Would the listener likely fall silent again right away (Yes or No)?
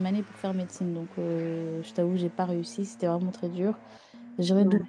Yes